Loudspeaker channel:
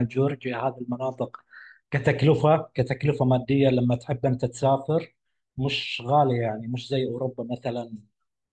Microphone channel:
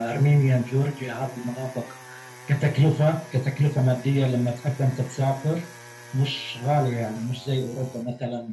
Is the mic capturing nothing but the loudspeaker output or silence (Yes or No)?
Yes